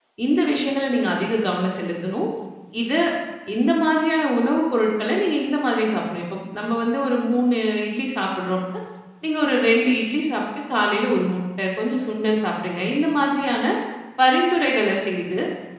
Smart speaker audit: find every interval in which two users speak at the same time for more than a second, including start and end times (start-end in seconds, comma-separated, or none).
none